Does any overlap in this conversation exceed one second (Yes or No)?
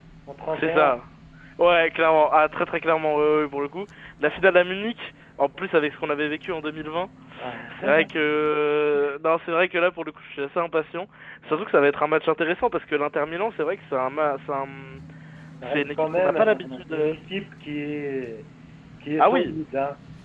Yes